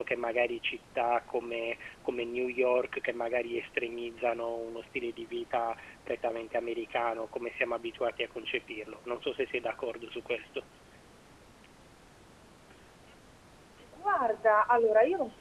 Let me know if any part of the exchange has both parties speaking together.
No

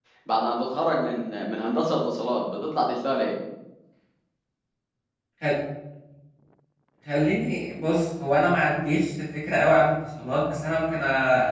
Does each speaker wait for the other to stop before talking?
Yes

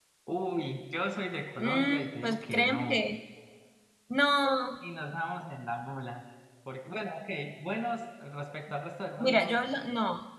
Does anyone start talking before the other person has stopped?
Yes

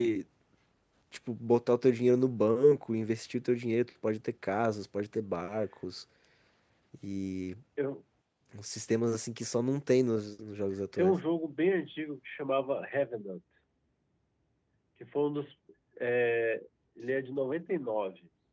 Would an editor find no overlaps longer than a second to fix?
Yes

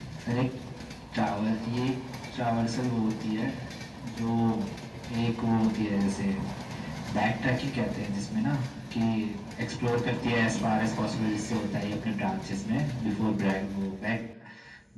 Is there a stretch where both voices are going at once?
No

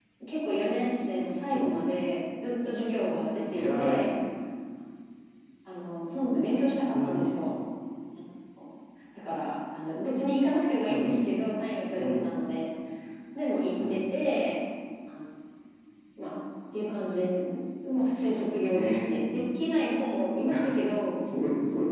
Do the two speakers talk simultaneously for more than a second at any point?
No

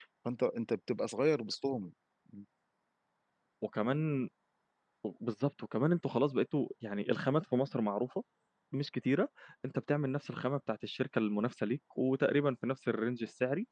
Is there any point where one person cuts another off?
No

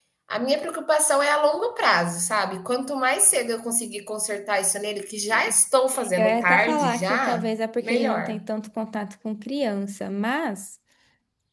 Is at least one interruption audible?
Yes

